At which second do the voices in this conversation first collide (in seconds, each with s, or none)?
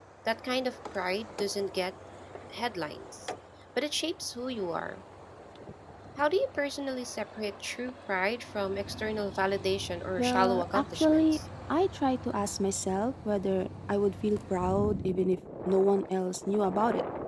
10.2 s